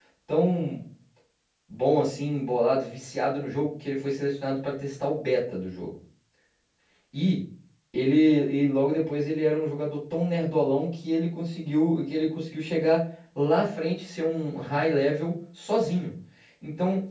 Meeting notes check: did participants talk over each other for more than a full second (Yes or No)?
No